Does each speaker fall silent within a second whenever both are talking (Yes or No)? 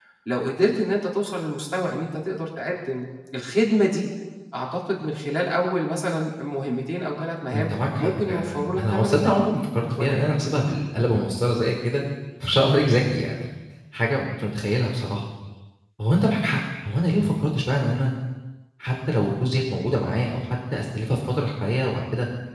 No